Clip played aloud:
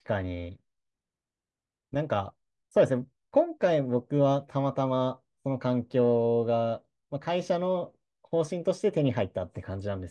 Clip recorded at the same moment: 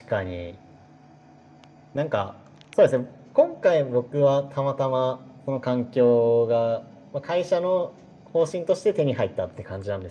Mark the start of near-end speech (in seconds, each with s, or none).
none